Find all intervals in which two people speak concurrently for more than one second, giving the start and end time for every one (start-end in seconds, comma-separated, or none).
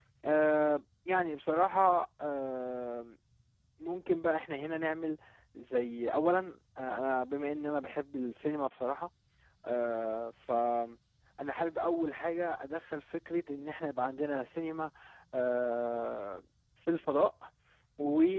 none